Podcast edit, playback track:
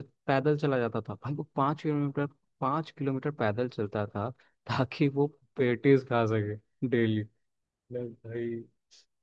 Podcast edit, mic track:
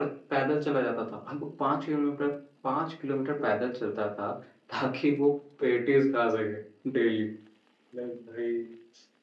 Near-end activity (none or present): present